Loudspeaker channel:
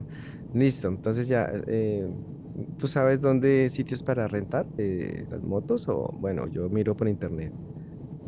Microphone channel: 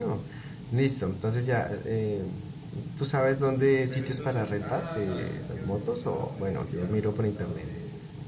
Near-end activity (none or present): present